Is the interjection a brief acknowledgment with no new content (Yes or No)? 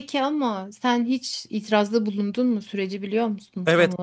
No